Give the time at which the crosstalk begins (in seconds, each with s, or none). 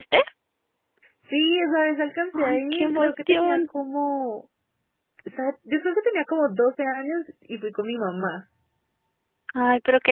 2.3 s